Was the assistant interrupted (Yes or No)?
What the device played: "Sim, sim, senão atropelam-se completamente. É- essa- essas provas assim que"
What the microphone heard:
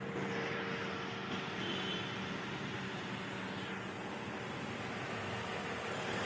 No